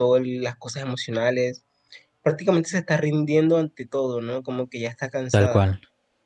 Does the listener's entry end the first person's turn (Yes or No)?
Yes